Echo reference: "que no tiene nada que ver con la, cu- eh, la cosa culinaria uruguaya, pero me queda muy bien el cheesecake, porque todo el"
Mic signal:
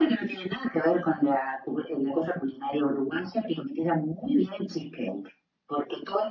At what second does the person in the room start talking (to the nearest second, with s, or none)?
none